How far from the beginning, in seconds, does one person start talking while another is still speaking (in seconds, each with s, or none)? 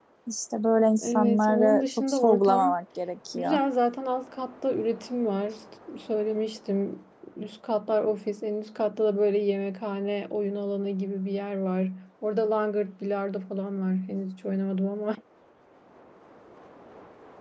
1.0 s